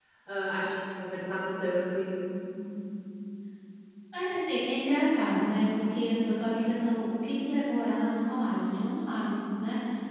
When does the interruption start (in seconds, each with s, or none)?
none